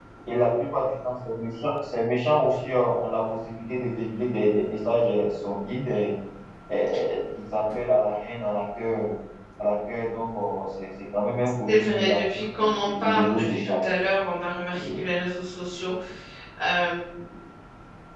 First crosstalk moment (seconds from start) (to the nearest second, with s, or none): 12 s